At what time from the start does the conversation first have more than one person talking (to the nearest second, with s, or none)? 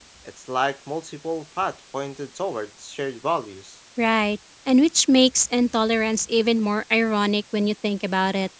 none